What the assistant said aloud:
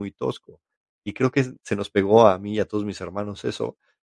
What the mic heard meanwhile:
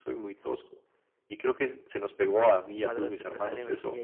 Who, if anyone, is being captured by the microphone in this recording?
both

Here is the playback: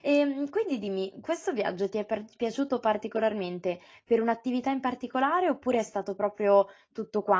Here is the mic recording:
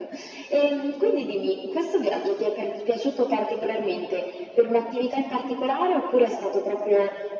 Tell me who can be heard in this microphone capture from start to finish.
echo only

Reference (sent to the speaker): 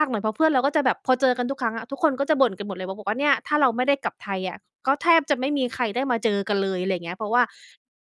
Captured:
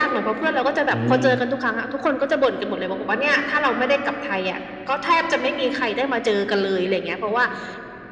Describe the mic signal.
both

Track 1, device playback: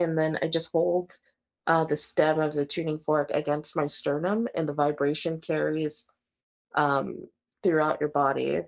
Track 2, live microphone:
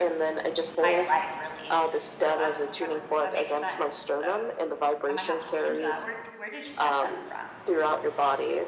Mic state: both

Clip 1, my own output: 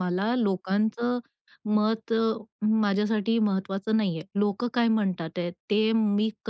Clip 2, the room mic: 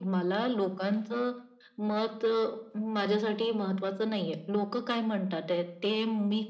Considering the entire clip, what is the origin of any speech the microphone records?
echo only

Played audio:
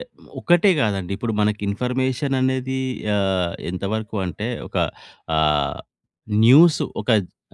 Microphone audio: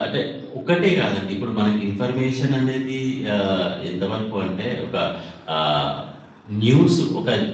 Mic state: echo only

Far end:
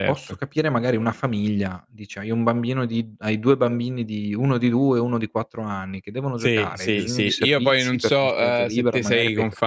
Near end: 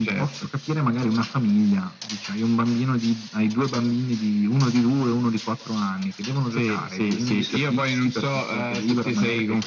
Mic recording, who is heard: echo only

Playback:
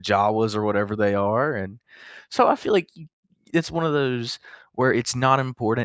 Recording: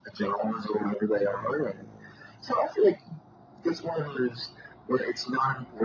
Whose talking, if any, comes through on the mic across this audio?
echo only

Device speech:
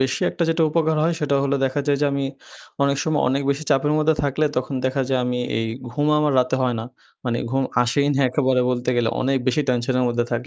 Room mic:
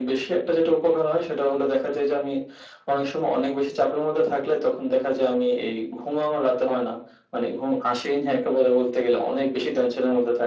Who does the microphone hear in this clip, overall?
echo only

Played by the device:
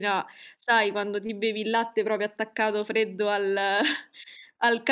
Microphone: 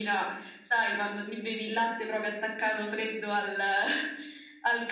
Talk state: echo only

